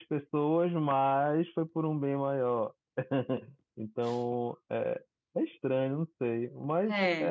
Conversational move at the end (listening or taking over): listening